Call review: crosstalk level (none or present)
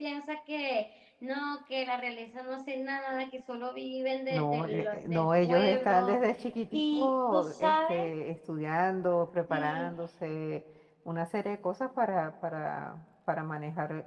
present